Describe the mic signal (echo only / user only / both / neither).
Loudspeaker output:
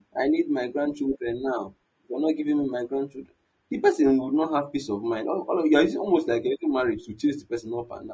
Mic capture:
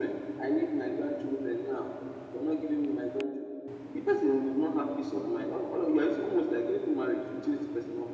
echo only